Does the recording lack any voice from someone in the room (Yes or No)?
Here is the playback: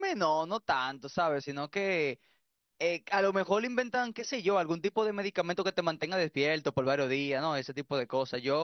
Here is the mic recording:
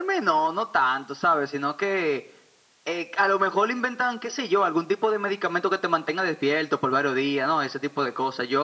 Yes